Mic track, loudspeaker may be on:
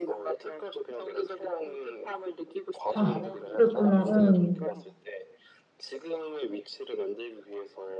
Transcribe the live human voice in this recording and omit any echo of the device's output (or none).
아, 그랬구나. 음,